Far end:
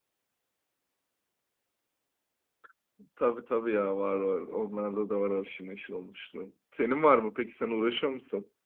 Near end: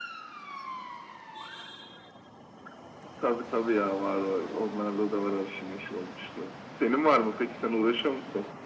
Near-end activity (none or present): none